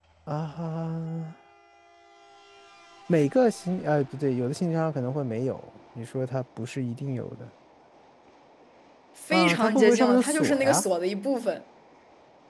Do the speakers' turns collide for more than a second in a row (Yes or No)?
Yes